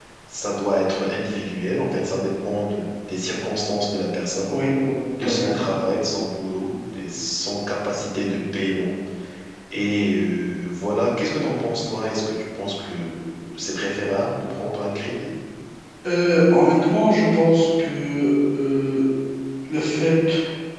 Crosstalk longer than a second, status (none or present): none